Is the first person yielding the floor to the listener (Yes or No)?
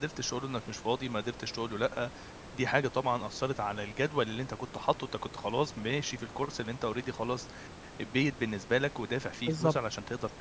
No